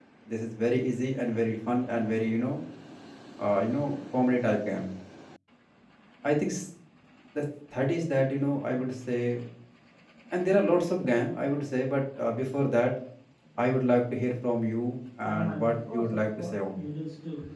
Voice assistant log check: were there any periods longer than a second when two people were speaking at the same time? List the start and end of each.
15.3-16.8

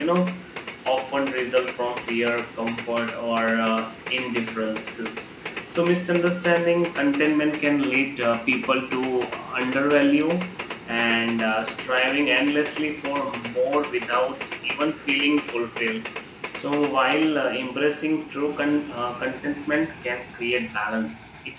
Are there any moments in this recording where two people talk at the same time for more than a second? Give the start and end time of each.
none

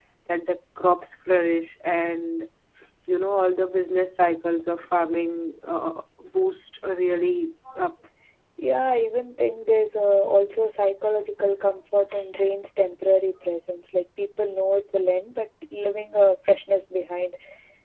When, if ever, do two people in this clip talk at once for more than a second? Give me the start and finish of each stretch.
none

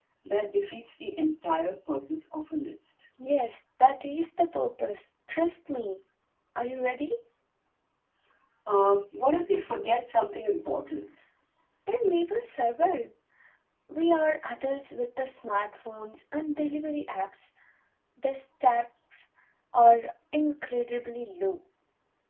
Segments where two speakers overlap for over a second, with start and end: none

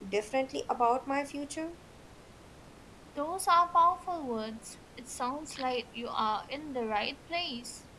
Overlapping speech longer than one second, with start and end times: none

